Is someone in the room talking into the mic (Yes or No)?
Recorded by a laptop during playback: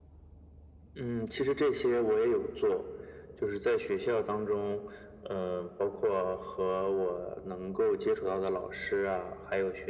No